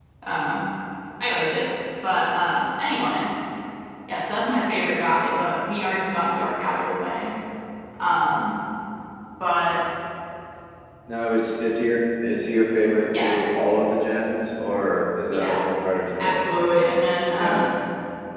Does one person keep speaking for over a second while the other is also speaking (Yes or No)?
No